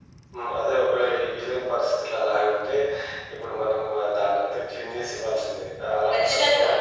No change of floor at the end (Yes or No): Yes